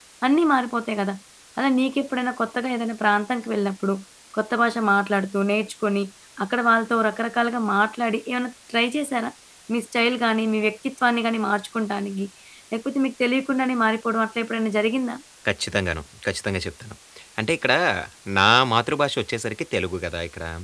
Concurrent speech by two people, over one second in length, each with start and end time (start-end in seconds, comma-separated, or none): none